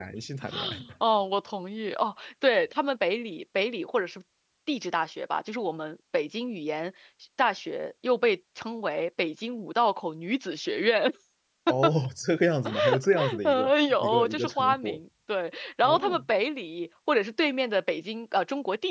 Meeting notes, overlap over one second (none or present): present